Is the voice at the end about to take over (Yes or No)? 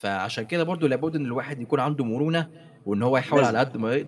No